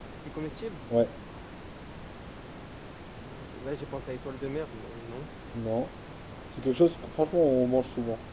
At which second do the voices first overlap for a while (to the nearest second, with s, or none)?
none